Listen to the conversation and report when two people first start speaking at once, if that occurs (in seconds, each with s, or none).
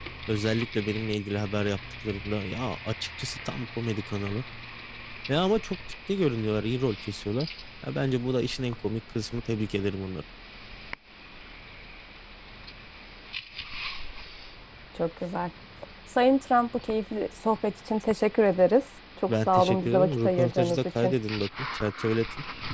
19.3 s